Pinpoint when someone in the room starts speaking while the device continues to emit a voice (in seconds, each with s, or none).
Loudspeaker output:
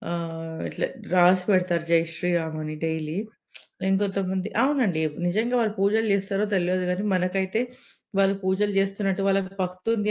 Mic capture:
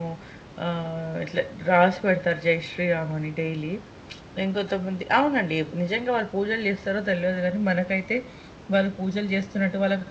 none